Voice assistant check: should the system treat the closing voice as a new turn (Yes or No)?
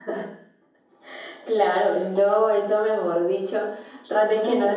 No